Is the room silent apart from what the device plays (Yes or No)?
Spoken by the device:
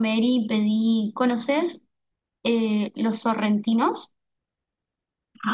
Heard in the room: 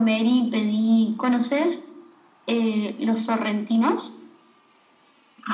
Yes